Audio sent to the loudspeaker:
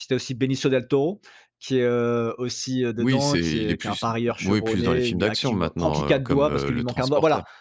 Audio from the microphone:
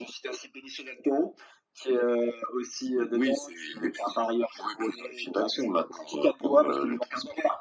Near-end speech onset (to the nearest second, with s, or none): none